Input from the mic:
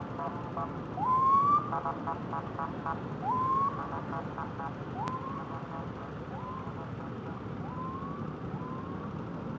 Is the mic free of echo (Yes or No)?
Yes